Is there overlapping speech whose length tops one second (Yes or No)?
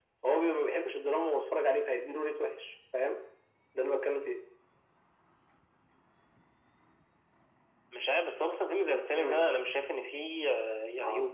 No